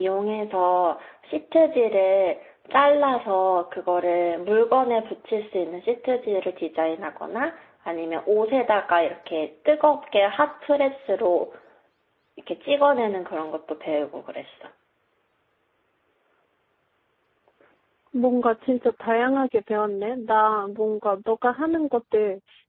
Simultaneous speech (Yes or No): No